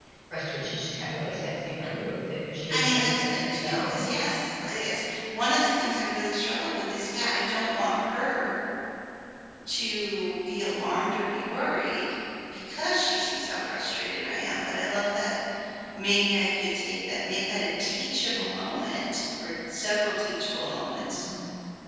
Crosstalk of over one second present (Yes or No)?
Yes